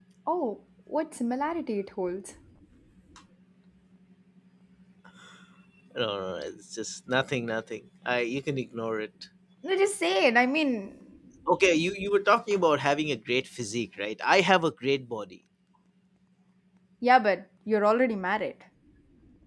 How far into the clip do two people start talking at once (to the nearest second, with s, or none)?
none